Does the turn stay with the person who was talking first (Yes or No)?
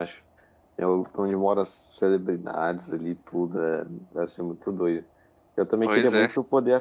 Yes